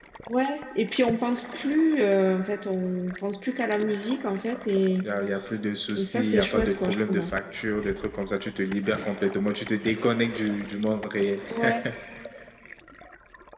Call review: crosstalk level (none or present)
present